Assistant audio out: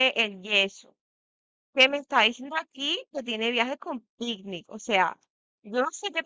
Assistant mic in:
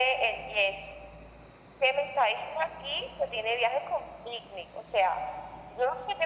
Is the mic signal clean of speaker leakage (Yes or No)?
No